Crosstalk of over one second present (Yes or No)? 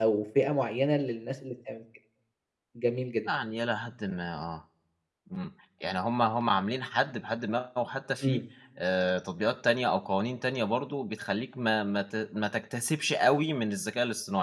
No